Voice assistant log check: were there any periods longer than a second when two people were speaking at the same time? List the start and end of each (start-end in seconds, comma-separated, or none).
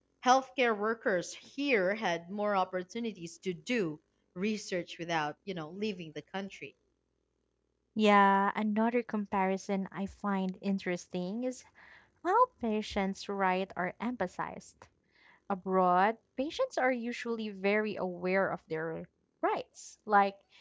none